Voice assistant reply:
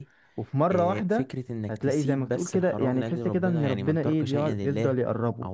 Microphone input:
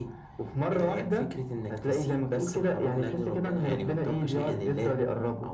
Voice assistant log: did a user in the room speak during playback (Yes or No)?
No